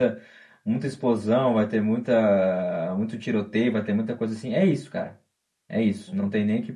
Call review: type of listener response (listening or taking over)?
listening